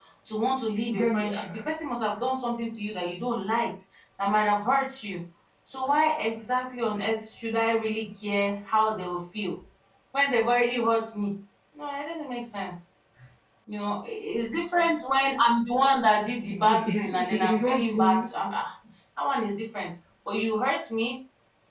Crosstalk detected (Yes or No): Yes